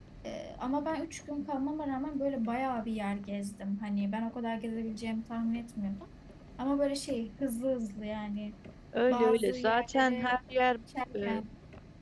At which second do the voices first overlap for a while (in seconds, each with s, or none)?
9.1 s